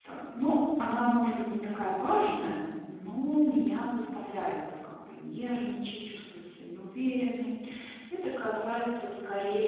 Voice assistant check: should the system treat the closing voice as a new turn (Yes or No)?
No